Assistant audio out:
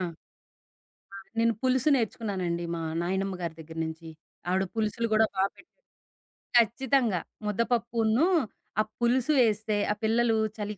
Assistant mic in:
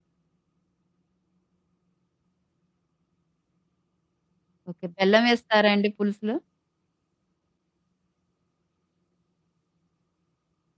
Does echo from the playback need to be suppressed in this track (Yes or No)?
No